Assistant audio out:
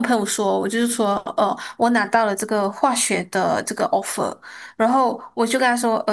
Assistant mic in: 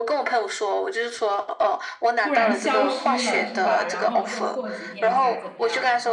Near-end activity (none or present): present